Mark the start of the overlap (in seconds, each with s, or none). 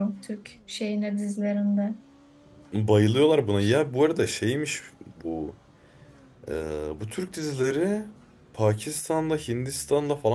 none